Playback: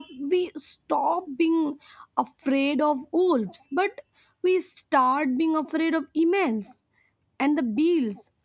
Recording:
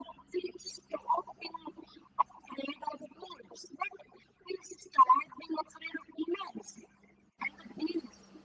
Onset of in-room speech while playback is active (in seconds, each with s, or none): none